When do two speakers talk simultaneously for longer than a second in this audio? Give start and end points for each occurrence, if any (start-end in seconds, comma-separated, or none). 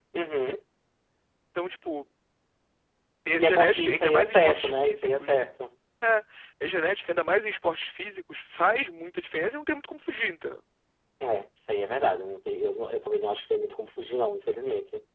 3.4-5.4